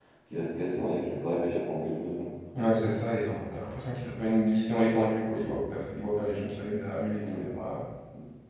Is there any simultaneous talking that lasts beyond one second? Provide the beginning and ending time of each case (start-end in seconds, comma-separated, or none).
none